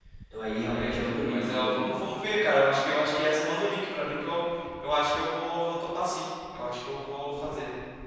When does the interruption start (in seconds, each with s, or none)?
0.7 s